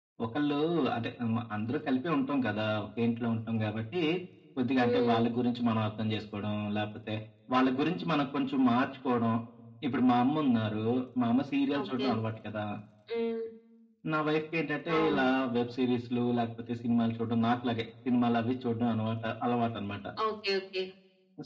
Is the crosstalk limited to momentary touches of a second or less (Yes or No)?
Yes